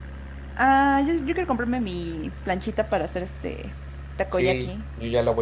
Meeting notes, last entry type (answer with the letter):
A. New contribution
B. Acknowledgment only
A